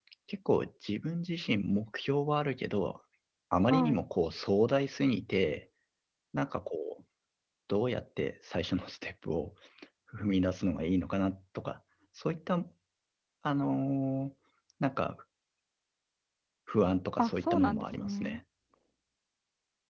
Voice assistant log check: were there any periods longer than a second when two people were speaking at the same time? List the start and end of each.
17.2-18.4

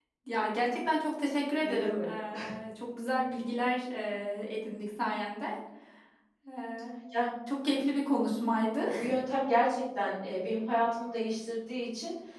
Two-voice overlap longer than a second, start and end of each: none

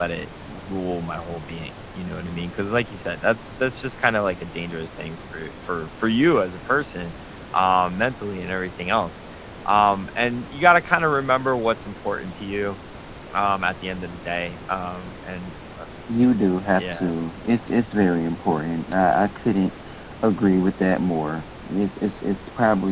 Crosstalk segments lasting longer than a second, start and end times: none

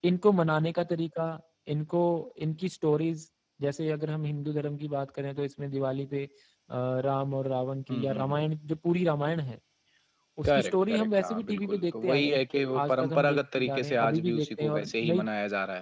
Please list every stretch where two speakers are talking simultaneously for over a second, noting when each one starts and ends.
10.4-12.4, 12.8-15.2

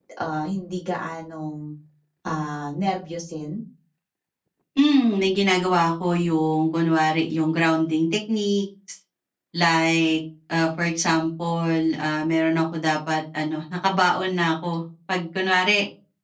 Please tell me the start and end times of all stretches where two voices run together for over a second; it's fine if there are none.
none

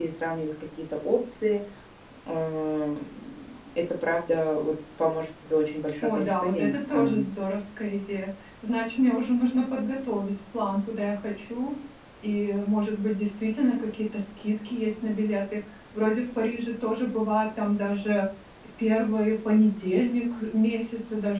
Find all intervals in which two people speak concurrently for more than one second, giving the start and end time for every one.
6.0-7.3

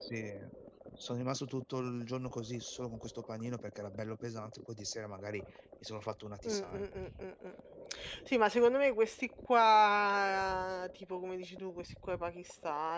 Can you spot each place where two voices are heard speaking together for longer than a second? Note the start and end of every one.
none

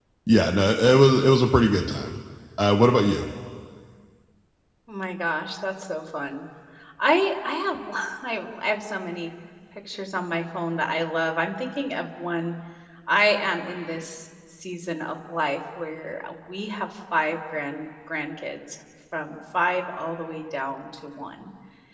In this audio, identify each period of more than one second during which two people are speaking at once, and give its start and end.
none

